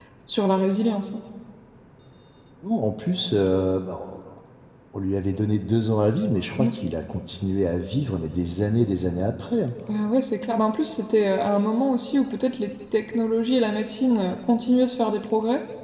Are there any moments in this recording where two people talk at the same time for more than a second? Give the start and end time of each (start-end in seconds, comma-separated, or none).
none